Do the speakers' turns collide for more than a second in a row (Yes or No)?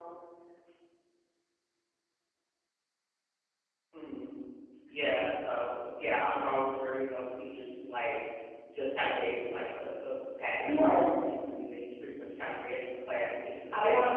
No